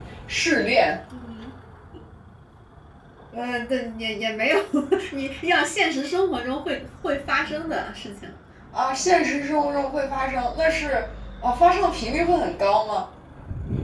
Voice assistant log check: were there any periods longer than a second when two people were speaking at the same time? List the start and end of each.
none

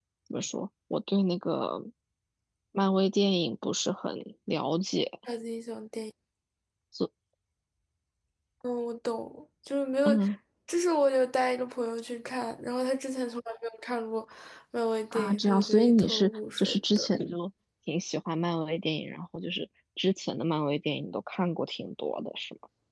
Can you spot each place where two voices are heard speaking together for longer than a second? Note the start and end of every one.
15.1-17.1

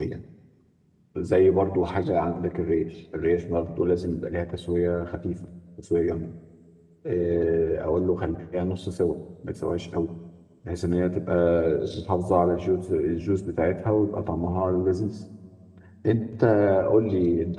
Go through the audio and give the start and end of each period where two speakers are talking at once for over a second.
none

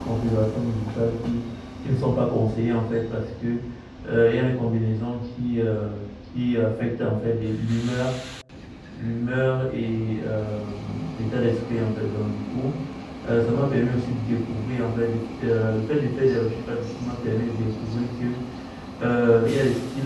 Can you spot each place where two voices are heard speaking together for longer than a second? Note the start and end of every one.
none

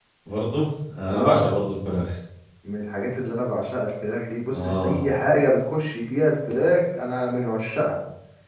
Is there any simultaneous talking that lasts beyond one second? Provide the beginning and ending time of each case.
none

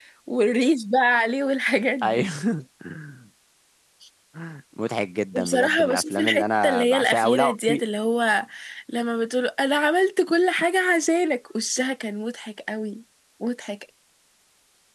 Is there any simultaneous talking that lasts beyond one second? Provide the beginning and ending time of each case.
5.3-7.8

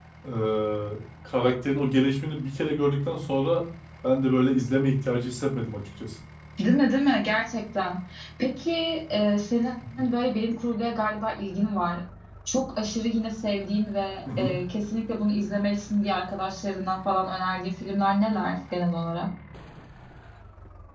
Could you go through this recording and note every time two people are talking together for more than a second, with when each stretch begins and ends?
none

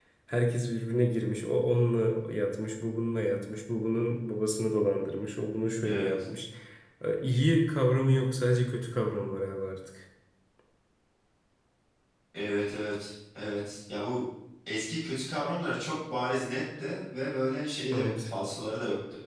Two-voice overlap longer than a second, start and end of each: none

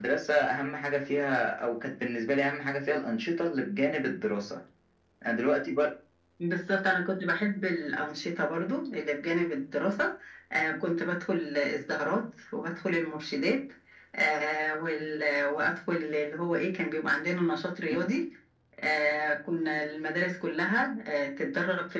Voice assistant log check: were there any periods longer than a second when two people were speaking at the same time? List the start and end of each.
none

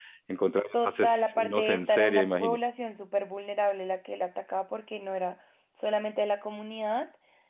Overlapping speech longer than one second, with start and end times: 0.7-2.6

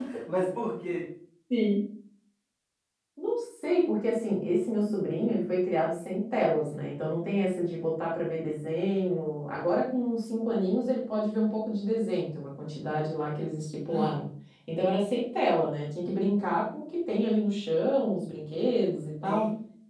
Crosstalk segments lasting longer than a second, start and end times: none

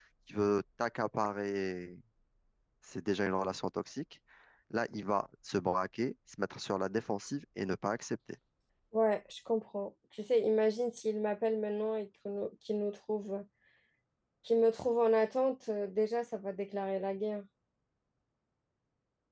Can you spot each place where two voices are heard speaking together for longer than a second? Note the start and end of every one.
none

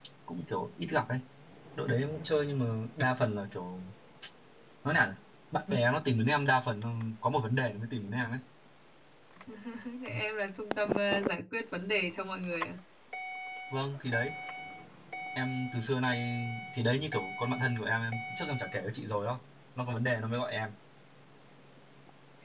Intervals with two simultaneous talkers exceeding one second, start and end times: none

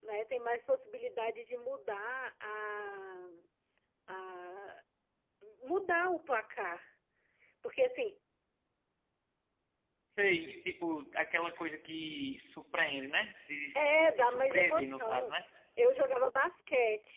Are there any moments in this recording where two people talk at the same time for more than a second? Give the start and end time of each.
13.7-15.3

